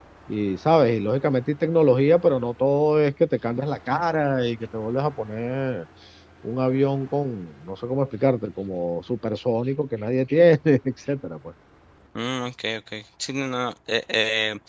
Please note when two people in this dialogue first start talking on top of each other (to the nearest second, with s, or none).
none